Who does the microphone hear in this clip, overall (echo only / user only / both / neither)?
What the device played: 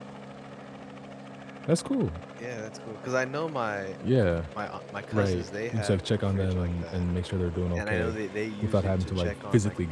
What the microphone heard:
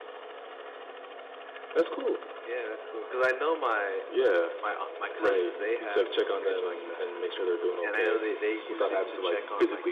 echo only